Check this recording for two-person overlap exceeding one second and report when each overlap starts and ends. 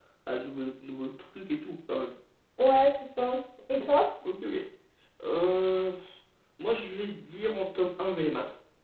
none

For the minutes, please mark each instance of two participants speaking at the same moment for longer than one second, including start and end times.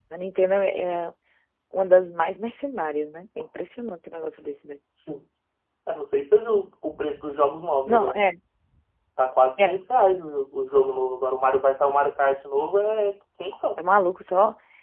none

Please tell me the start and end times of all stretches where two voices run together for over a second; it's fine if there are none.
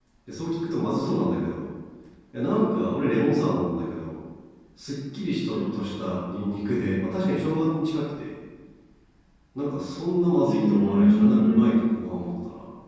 10.4-11.7

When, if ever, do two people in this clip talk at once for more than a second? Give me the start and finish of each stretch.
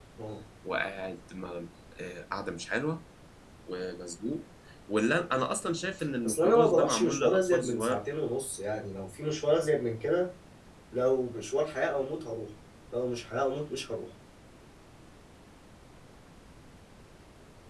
6.2-8.0

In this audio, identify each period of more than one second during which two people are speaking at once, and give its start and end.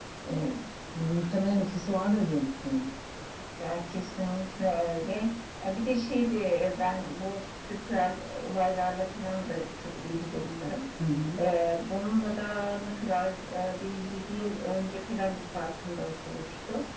none

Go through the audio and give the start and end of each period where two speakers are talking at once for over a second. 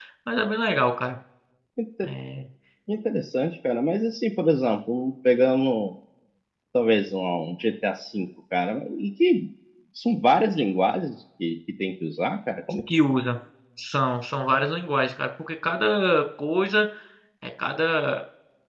none

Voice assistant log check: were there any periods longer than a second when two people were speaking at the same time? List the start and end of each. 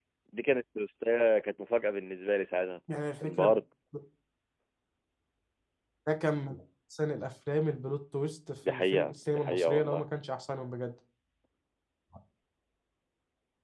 8.7-10.0

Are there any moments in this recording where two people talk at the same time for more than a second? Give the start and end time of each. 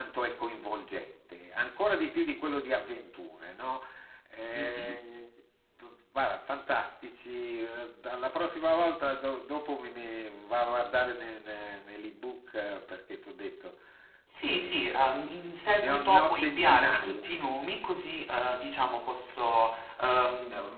15.8-17.3

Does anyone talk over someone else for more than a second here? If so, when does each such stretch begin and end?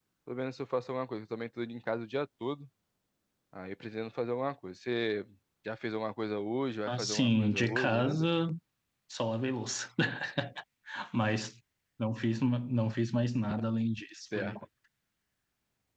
6.9-8.3

